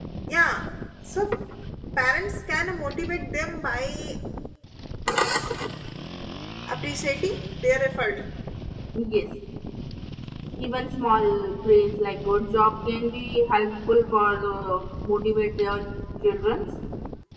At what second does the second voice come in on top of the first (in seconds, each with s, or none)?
none